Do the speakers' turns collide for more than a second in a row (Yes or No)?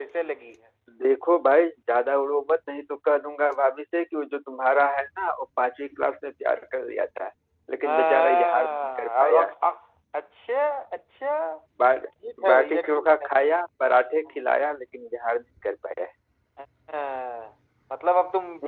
Yes